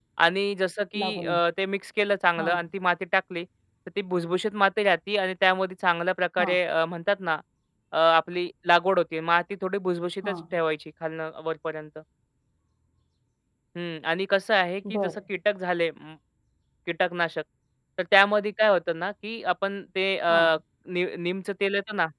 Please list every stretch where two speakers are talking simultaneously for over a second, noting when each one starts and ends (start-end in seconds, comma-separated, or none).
none